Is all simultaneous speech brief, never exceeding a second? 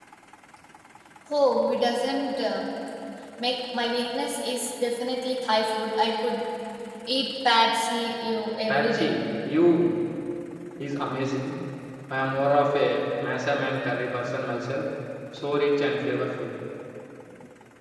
Yes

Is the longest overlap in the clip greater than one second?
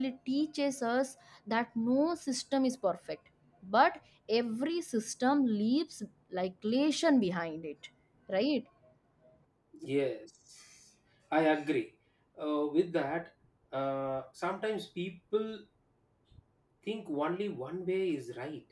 No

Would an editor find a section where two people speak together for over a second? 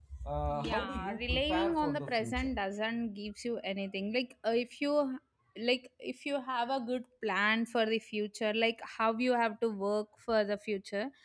Yes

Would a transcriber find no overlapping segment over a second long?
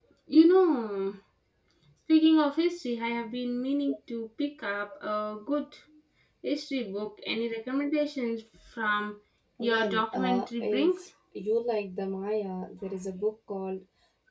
No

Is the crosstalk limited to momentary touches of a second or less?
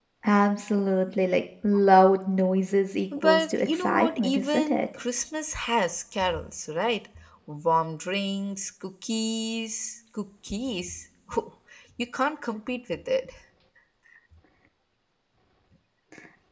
No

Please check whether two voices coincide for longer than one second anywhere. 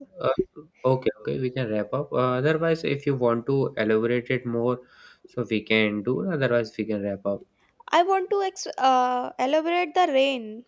No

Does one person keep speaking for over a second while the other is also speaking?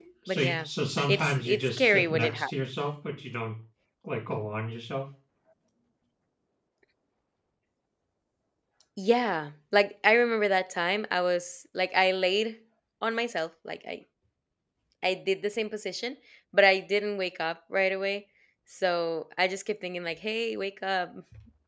Yes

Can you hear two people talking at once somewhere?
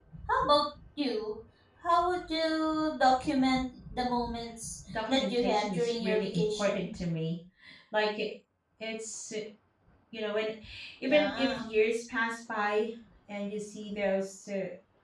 Yes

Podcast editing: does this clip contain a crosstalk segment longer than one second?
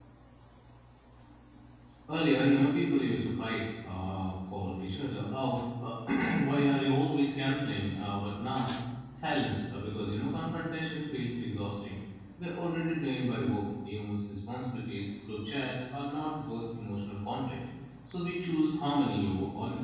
No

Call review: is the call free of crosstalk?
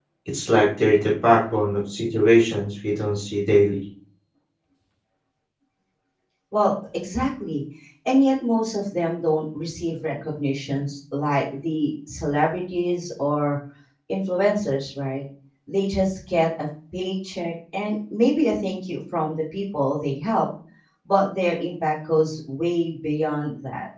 Yes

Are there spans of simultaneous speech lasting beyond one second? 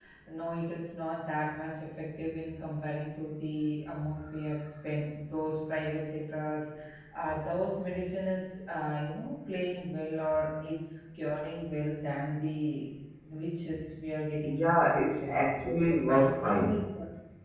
Yes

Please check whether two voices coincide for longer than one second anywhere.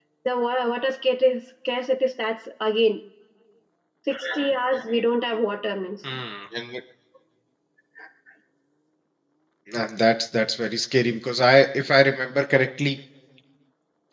No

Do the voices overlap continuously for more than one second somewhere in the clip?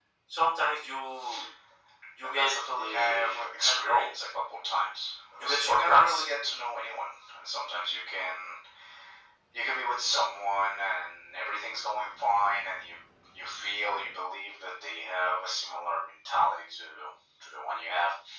Yes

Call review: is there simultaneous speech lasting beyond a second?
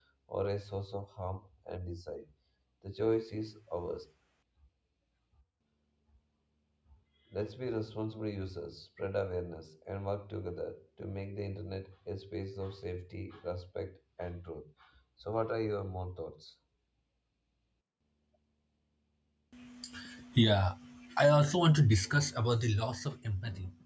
No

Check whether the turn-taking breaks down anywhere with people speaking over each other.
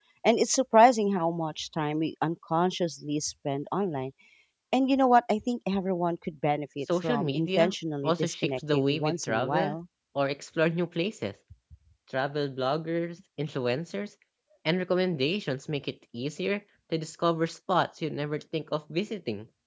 Yes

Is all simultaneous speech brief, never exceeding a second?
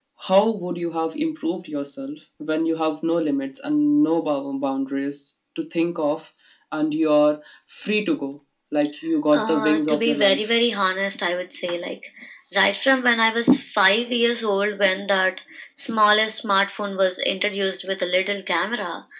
No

